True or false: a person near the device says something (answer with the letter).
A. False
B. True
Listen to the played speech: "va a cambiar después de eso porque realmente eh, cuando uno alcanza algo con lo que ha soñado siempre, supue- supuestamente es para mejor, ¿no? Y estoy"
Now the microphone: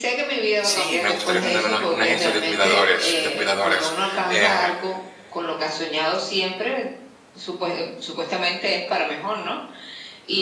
B